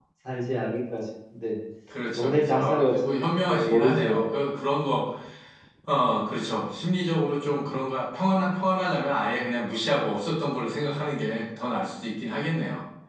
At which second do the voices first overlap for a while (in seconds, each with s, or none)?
2.2 s